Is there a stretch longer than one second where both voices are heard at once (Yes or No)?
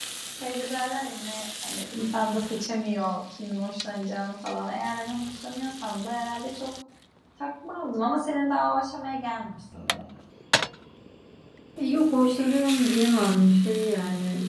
No